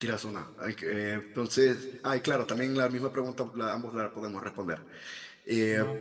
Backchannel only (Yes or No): Yes